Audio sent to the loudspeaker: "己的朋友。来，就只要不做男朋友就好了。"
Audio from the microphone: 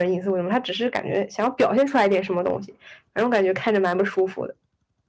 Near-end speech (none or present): present